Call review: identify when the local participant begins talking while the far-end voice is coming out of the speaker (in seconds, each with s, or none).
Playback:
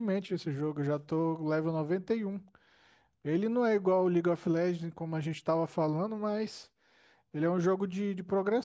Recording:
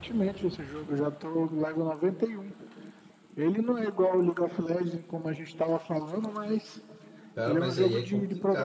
7.3 s